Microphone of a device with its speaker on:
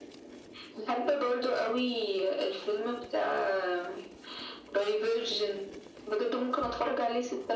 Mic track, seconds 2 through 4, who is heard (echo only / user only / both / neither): echo only